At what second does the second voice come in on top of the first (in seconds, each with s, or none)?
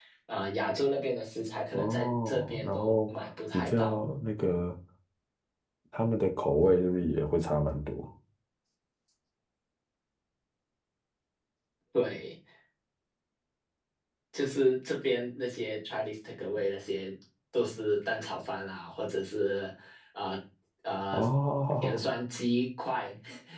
1.7 s